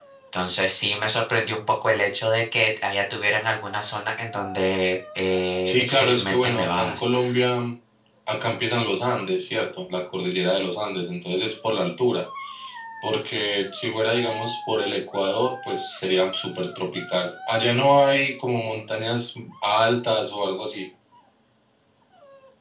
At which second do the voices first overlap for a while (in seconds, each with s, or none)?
5.7 s